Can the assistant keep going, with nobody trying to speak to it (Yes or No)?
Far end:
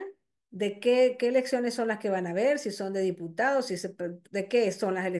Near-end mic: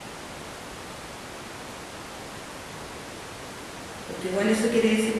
No